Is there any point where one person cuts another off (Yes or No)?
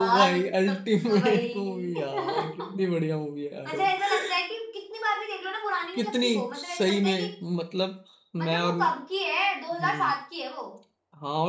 Yes